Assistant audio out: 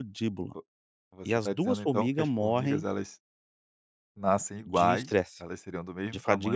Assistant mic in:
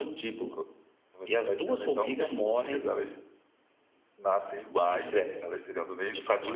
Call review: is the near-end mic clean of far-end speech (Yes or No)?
No